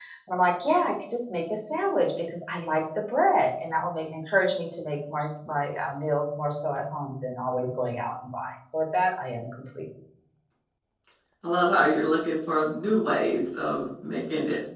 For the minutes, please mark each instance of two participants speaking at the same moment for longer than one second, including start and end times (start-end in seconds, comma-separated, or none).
none